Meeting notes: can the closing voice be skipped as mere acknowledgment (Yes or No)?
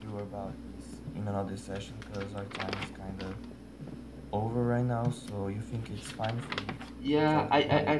No